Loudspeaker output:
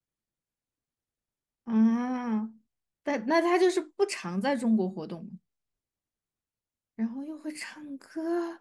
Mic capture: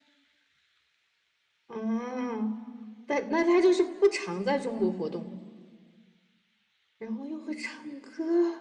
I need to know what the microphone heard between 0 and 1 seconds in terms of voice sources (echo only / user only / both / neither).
neither